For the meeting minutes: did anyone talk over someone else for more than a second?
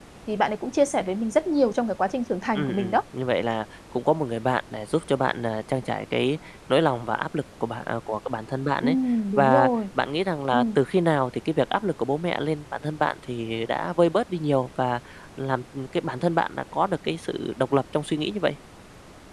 No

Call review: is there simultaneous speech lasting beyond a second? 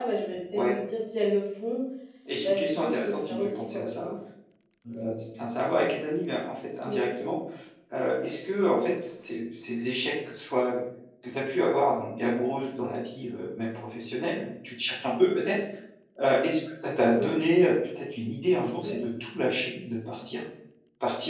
Yes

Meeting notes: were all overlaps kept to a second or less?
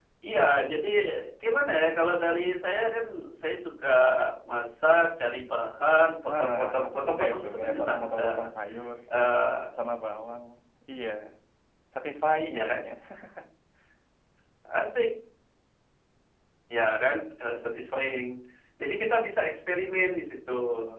No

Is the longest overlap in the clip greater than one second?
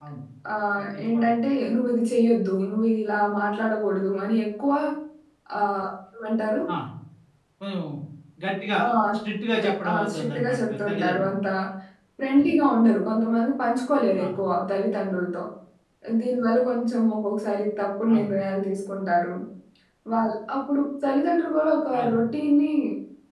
Yes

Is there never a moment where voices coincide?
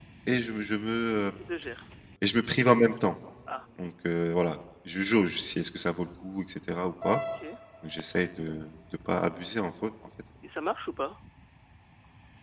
Yes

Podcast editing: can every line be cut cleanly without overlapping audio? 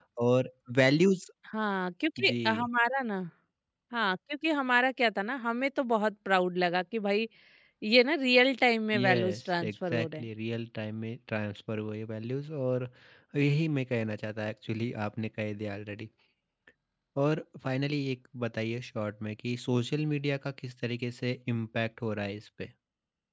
No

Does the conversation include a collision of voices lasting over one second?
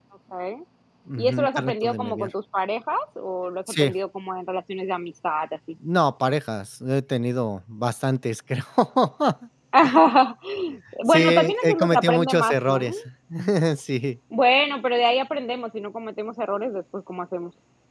Yes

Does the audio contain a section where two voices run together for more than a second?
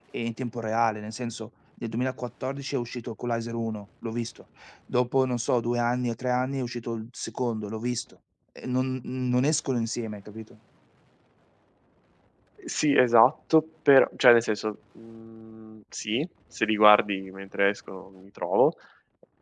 No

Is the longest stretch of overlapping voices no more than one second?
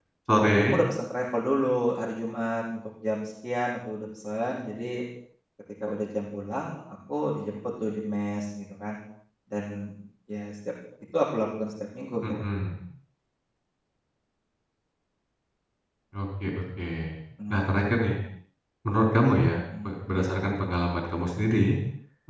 Yes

